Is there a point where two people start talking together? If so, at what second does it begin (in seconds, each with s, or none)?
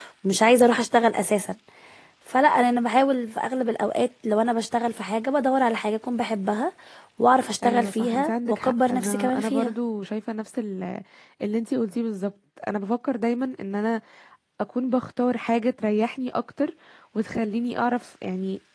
7.6 s